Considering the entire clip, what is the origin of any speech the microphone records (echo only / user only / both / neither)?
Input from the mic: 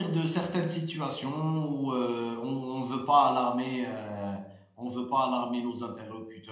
user only